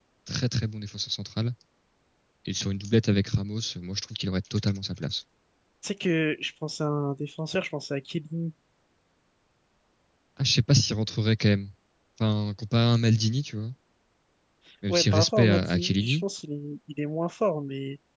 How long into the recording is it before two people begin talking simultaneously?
14.9 s

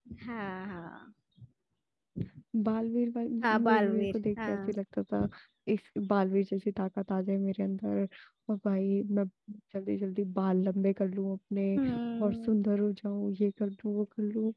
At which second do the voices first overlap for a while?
3.4 s

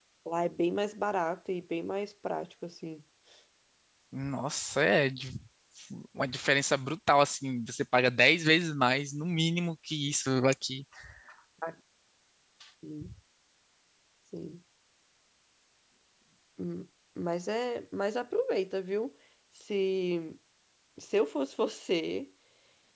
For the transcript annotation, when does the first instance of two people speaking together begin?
none

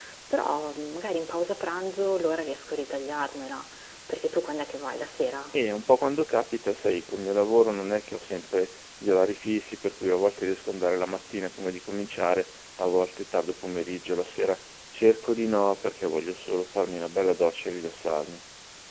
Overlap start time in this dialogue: none

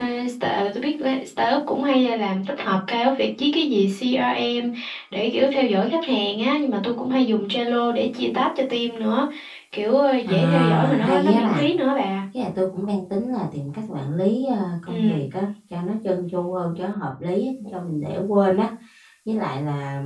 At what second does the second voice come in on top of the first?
10.2 s

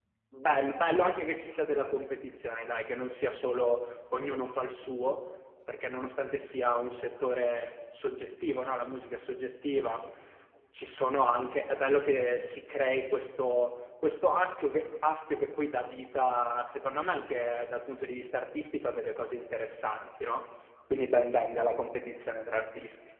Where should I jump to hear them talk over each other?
none

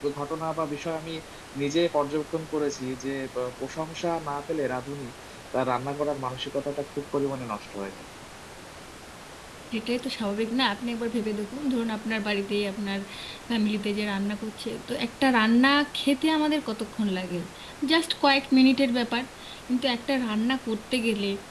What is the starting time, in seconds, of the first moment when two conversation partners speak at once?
none

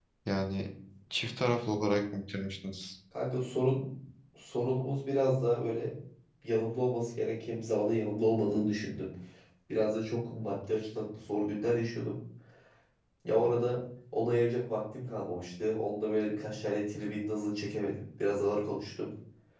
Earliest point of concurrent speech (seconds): none

